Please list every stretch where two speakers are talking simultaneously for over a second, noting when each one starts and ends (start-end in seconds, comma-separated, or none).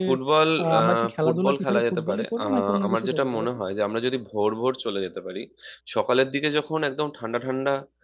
0.6-3.5